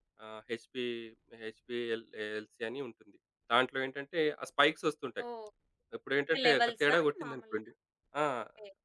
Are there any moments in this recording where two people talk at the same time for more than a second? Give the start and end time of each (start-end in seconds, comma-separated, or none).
6.3-7.6